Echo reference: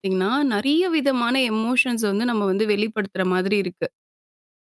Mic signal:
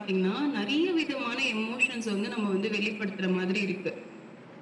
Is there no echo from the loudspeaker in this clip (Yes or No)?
No